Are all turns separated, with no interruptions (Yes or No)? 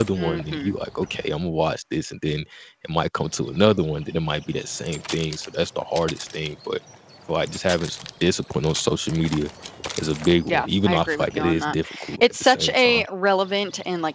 No